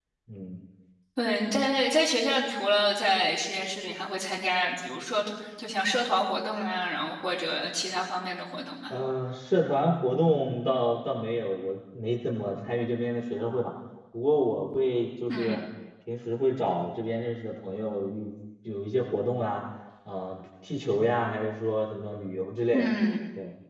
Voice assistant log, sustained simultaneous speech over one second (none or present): none